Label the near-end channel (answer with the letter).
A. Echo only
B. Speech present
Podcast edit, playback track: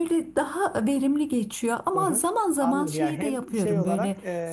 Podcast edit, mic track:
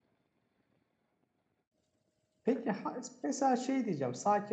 B